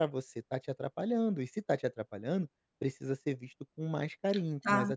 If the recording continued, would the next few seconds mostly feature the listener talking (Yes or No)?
Yes